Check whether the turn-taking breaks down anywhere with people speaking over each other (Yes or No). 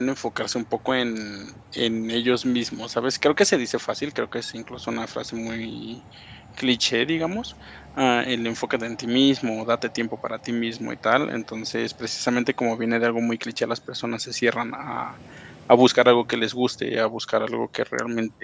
No